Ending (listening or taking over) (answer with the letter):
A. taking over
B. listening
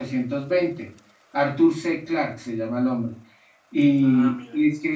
B